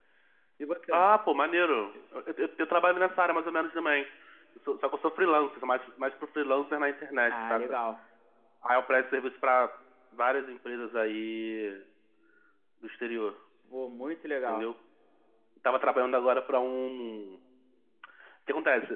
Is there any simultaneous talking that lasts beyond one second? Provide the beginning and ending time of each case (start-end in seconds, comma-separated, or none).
none